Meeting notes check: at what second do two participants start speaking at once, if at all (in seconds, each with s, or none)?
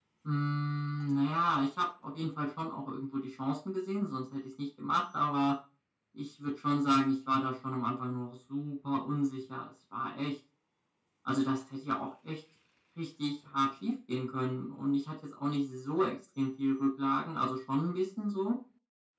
none